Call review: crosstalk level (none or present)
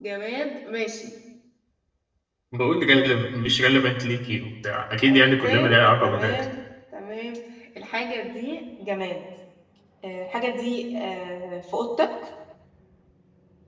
present